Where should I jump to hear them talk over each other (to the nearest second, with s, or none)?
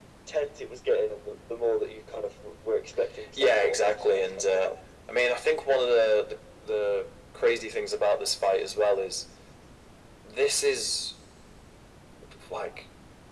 3 s